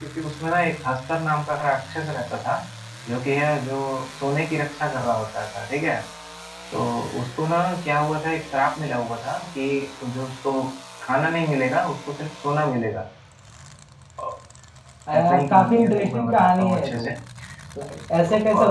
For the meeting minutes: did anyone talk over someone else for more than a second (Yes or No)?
Yes